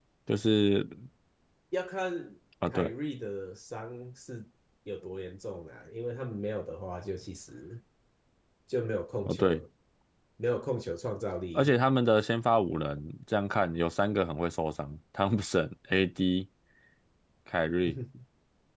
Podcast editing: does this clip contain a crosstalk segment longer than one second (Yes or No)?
No